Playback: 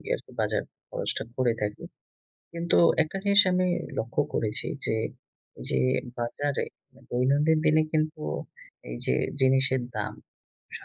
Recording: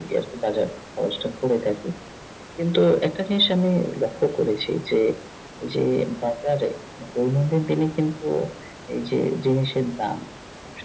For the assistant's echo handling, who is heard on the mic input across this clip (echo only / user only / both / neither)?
echo only